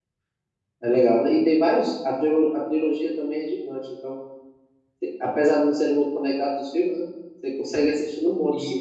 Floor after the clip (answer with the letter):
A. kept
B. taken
B